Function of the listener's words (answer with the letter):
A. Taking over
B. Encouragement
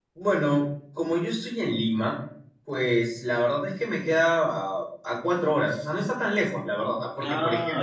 B